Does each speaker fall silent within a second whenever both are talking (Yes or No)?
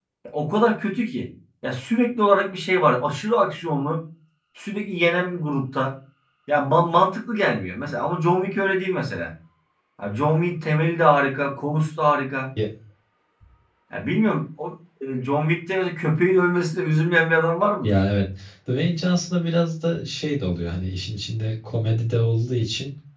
Yes